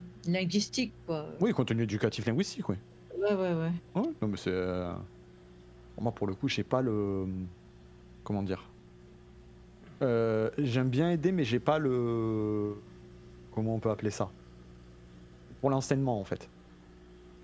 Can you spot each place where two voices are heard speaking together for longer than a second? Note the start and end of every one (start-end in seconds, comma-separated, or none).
none